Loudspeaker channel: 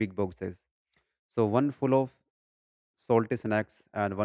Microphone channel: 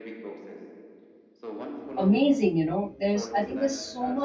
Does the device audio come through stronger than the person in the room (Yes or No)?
No